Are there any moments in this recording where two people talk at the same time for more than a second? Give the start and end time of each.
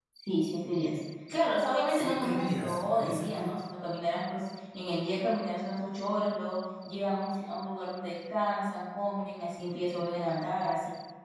1.9-3.6

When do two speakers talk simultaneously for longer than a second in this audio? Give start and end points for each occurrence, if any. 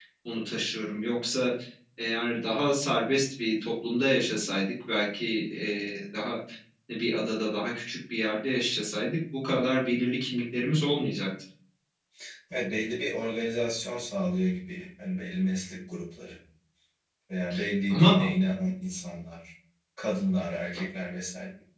none

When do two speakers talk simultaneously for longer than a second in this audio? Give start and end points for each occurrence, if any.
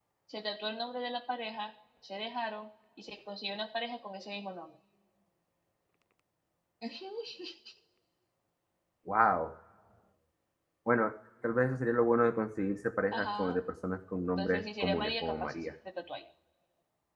14.4-15.6

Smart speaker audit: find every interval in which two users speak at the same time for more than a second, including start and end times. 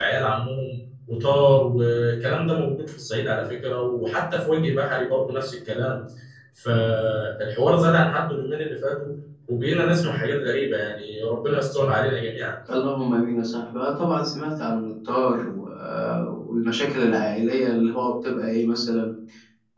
none

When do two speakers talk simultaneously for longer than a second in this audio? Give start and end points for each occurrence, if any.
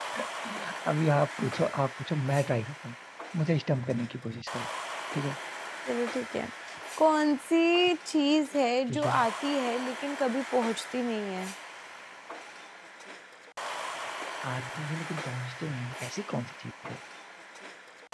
none

